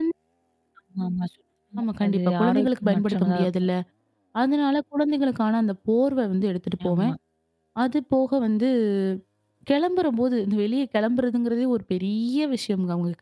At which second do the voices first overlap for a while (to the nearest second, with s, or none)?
2 s